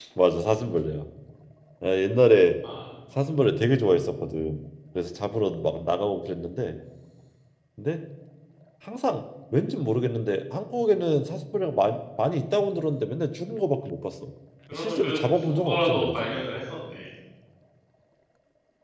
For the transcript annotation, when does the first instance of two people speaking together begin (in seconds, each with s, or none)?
14.7 s